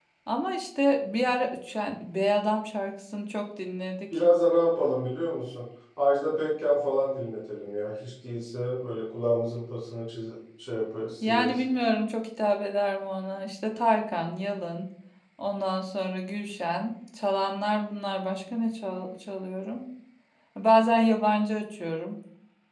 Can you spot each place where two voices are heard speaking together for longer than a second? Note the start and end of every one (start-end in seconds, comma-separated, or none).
none